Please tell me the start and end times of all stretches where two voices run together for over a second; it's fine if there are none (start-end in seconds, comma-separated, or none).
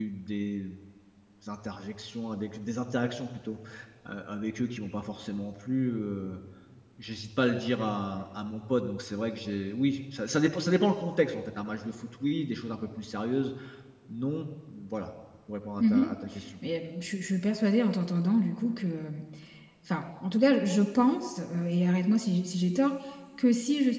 none